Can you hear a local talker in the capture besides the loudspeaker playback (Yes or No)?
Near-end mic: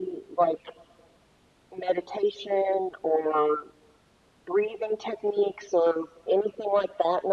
No